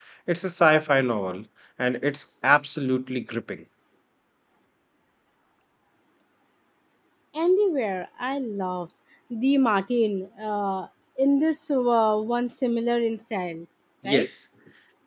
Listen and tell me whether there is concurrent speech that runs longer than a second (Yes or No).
No